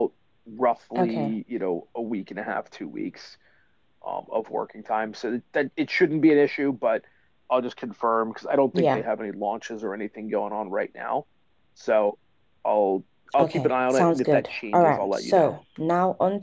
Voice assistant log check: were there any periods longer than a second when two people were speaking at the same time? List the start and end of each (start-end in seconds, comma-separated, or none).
13.4-15.5